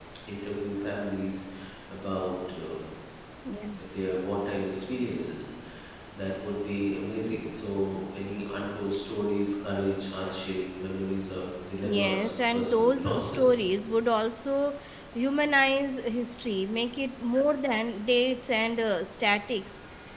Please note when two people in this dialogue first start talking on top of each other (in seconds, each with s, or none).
11.8 s